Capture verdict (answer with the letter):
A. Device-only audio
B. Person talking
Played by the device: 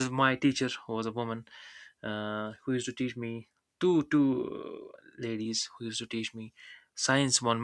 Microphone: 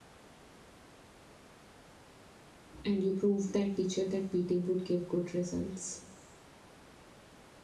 B